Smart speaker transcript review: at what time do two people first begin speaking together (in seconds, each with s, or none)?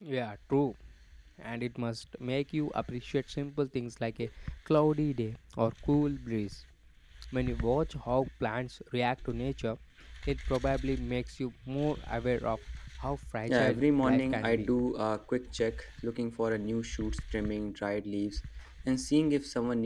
13.5 s